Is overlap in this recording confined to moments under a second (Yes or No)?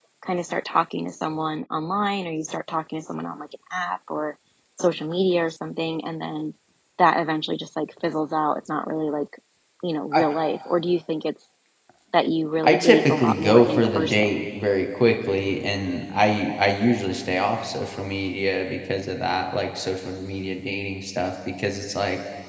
No